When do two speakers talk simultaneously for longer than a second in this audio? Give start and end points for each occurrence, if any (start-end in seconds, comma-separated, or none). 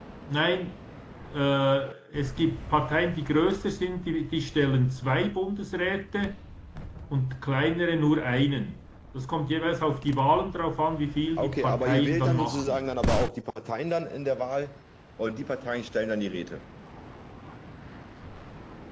11.4-12.8